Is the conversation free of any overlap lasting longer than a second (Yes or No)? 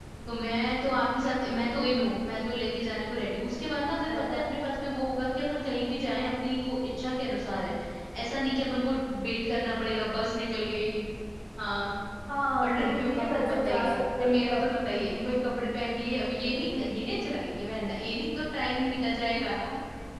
No